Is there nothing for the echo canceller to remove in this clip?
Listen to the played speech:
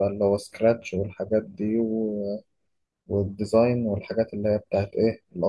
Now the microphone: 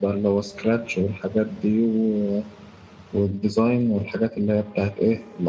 No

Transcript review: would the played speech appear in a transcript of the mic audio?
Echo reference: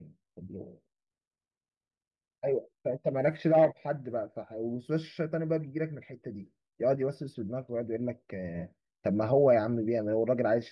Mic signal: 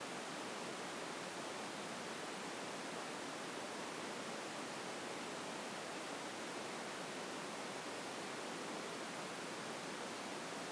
No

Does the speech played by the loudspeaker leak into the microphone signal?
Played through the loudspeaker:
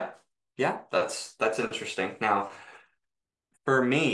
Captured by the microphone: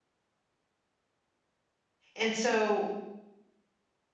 No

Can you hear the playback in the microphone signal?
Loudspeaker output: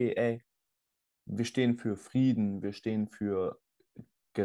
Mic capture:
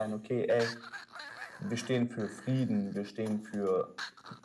Yes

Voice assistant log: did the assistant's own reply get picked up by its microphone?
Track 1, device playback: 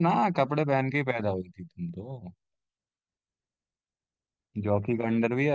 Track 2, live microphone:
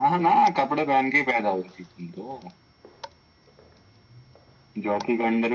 Yes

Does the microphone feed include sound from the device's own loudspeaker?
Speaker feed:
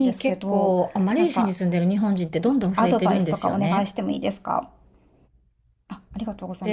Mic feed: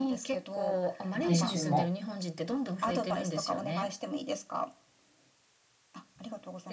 Yes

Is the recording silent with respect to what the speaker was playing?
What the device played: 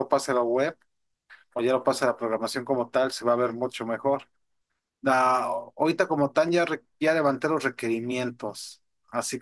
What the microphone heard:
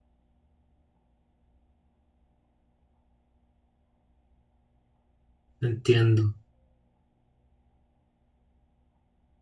Yes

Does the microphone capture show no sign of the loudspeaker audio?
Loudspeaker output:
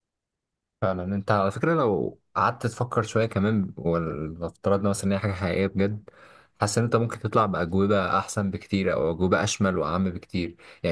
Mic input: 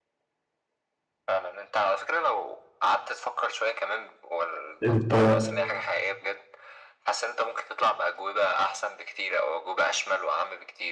No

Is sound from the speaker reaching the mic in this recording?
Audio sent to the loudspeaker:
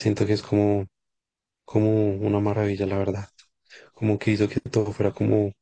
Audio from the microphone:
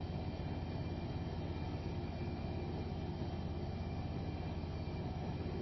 No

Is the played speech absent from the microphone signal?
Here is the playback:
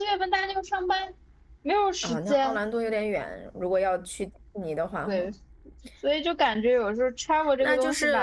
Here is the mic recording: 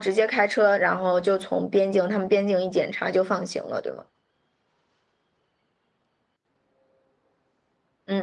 Yes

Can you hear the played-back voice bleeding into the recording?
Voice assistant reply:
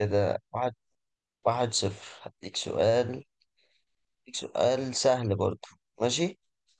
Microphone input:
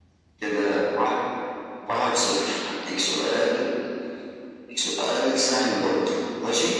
Yes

